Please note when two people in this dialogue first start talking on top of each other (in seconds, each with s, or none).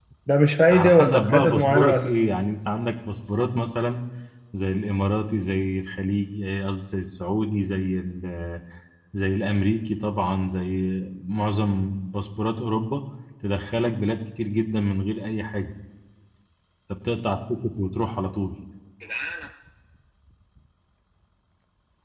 0.7 s